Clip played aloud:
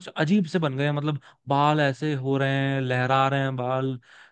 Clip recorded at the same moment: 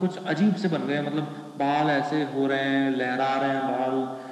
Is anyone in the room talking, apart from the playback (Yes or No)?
No